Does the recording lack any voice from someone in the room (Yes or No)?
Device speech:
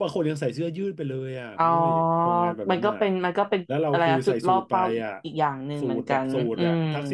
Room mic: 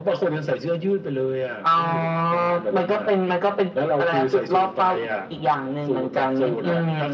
Yes